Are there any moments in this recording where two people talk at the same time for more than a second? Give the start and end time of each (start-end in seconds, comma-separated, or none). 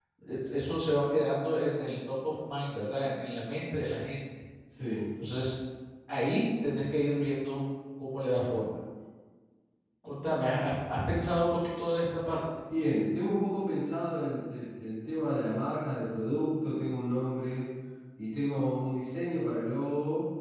none